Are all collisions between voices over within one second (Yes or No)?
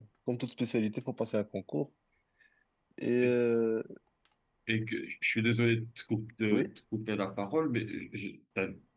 Yes